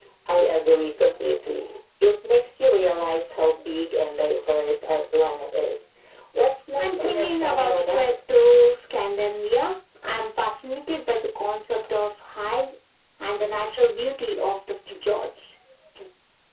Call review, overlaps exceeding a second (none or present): present